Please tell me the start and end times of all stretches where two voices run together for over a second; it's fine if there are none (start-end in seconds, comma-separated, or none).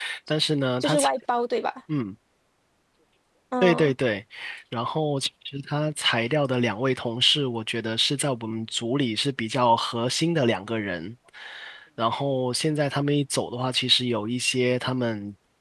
none